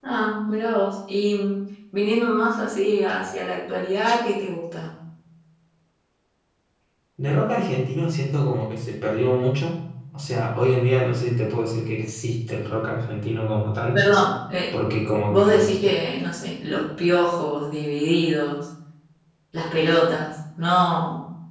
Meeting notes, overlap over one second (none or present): none